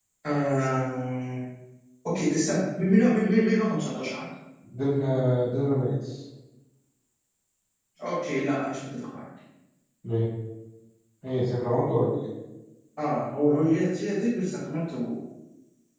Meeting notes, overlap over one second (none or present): none